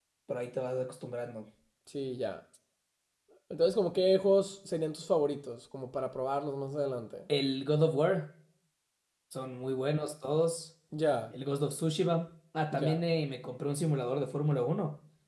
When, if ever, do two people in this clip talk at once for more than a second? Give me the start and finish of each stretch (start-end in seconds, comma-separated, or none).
none